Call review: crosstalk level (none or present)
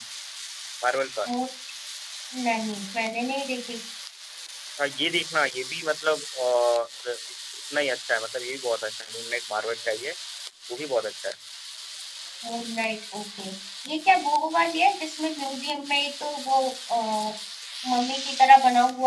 none